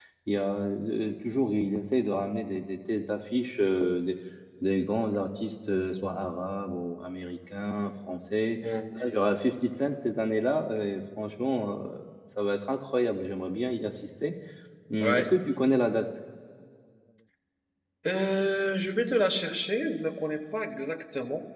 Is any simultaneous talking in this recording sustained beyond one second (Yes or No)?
No